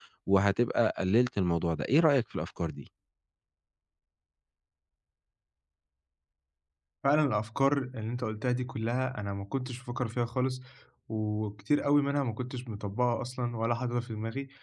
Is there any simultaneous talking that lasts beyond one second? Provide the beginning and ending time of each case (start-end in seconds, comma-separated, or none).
none